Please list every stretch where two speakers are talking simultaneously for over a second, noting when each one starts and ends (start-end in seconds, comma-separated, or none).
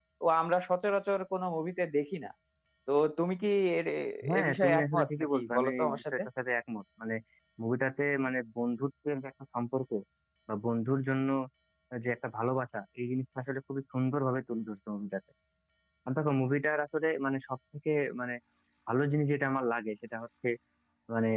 4.4-6.2